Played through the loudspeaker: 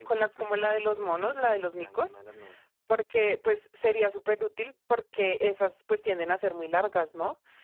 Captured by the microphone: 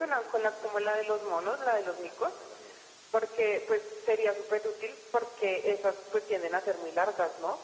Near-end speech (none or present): none